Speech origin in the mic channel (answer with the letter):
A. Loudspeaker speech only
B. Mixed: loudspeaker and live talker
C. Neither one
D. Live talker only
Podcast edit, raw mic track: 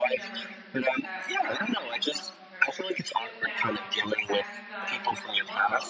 B